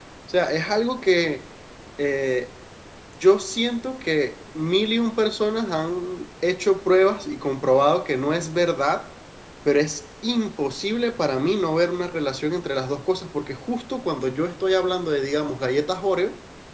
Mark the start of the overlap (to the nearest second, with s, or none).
none